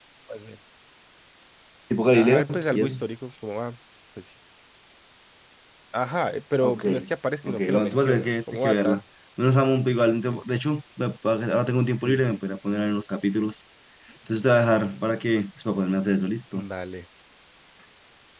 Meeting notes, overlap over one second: present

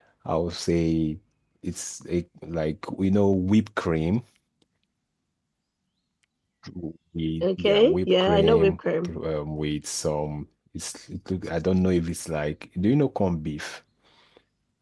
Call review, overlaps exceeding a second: present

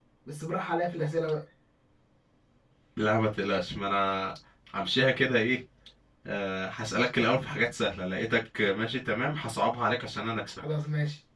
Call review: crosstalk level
none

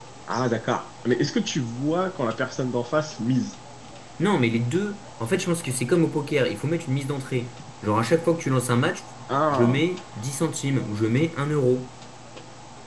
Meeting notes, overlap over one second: none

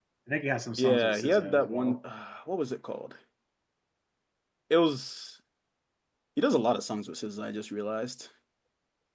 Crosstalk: present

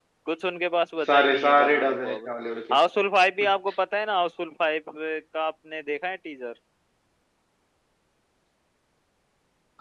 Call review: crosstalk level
present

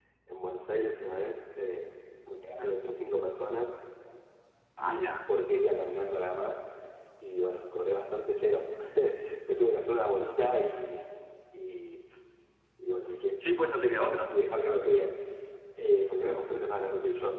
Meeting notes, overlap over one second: none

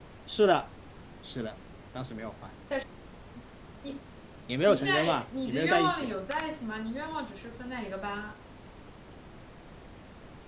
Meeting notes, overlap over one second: present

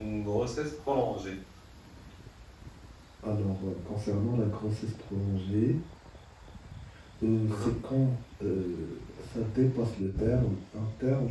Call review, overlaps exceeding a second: none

